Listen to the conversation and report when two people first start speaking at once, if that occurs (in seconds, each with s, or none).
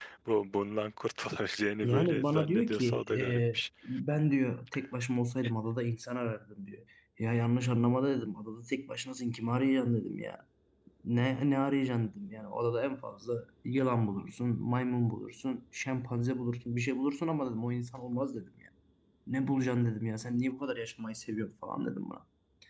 1.8 s